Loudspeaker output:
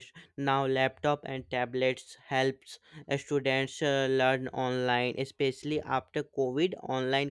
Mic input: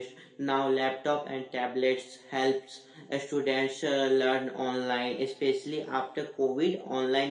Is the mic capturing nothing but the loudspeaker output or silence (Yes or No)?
Yes